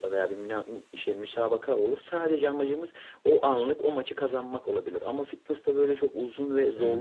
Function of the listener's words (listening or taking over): taking over